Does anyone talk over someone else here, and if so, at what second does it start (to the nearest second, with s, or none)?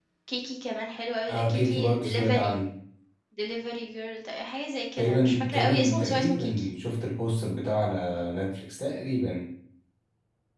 1 s